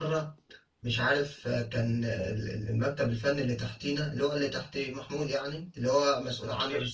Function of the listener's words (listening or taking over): listening